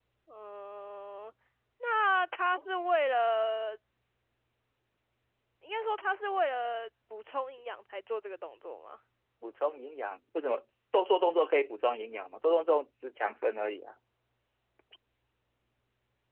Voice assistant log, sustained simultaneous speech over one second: none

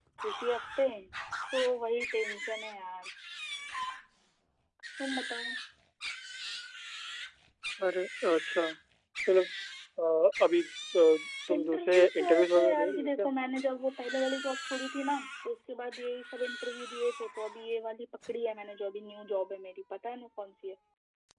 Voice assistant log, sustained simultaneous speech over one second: present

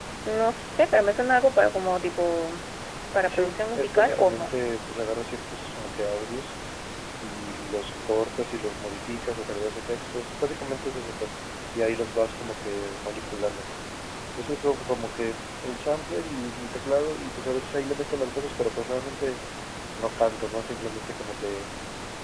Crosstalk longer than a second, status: present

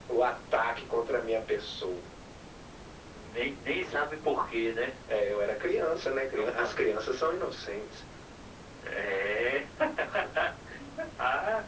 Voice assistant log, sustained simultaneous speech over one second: none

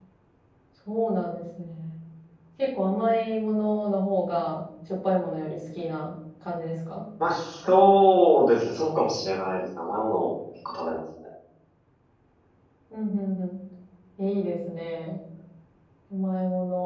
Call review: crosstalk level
none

